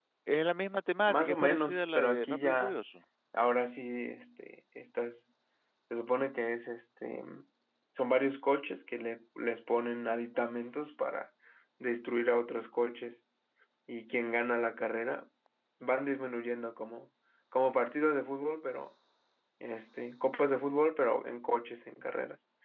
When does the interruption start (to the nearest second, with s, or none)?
1 s